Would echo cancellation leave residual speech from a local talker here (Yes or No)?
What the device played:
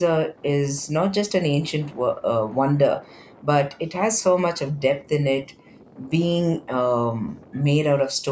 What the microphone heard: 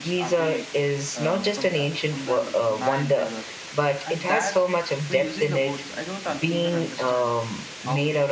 Yes